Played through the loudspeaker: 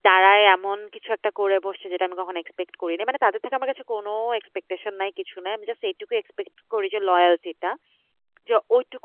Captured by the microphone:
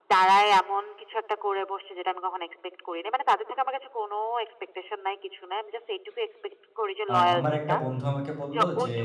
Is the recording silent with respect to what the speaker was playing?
No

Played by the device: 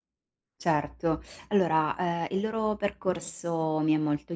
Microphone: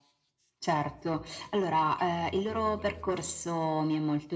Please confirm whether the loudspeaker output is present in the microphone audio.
Yes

